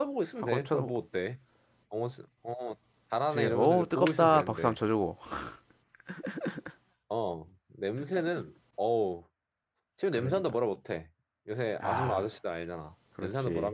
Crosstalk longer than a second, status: present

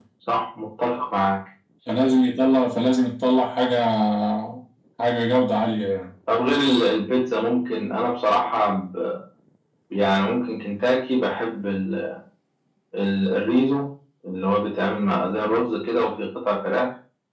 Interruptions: none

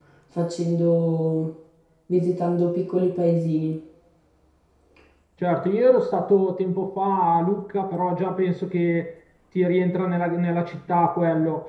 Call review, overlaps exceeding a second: none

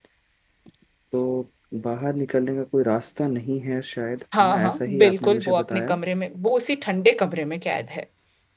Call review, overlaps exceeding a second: present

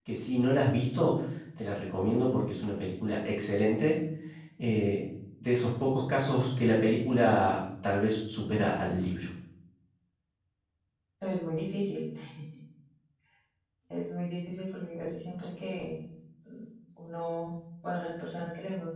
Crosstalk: none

